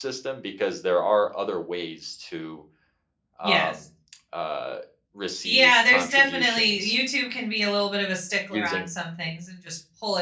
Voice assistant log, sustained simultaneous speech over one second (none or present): present